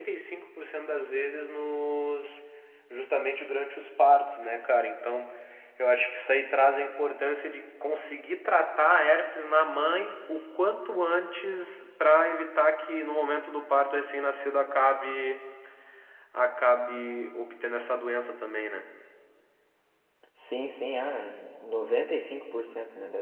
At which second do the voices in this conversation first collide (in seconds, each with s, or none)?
none